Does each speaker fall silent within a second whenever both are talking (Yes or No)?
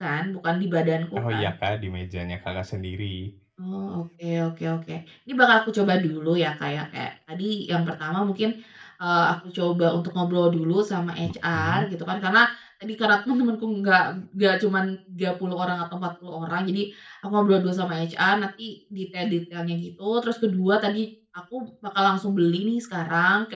Yes